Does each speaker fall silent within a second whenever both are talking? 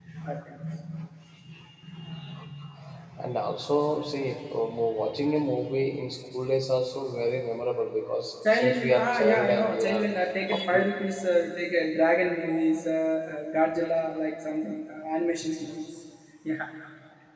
No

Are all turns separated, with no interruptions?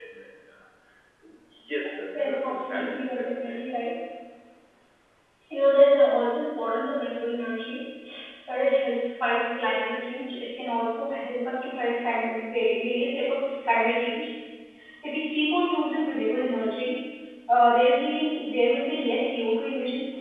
No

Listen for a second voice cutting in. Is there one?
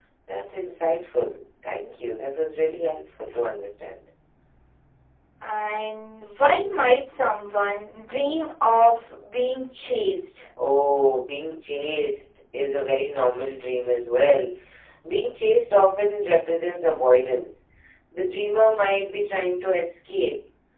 No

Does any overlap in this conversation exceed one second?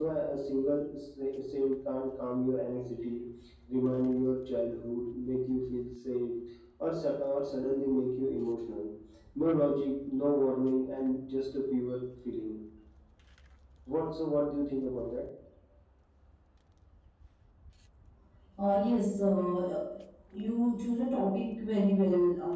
No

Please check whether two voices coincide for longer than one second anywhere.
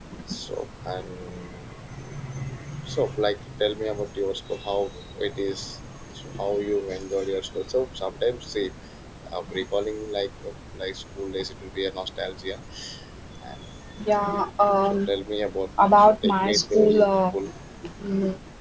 Yes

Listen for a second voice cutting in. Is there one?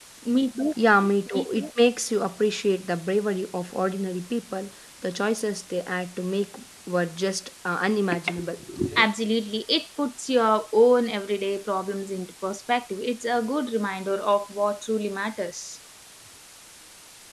No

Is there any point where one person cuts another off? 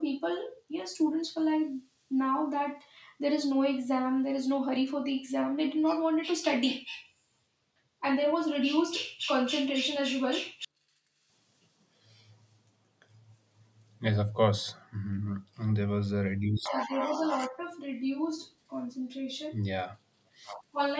No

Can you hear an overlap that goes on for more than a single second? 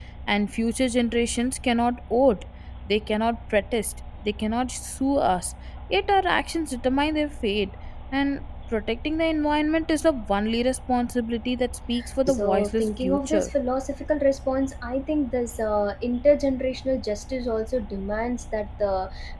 Yes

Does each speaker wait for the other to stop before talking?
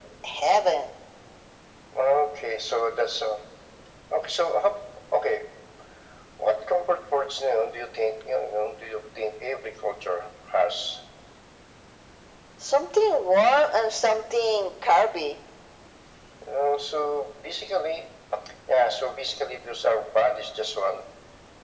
Yes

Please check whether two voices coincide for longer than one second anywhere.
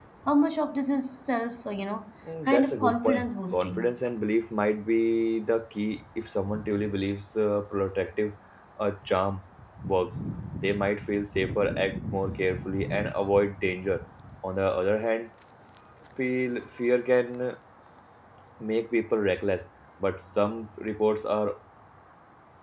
Yes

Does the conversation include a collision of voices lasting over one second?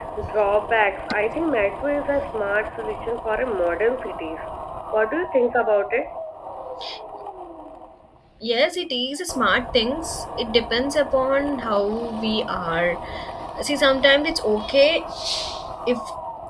No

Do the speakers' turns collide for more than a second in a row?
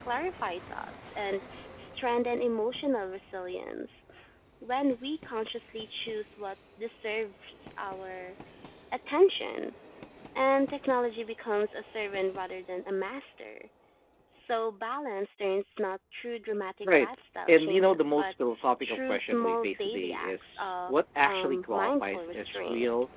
Yes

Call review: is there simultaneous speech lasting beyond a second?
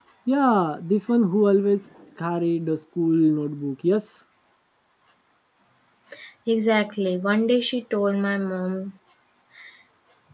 No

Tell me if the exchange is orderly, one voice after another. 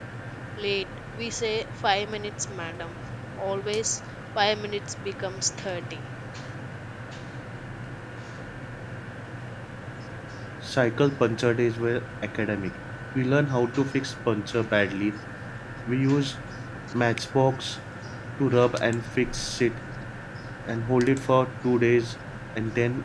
Yes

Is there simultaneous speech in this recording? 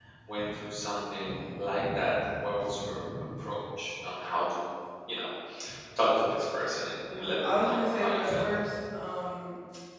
Yes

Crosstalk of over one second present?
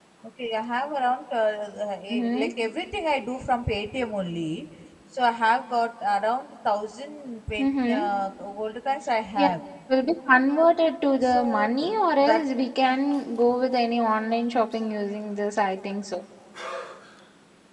Yes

